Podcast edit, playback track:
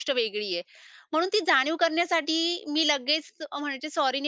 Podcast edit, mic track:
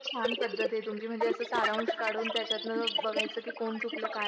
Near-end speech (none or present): present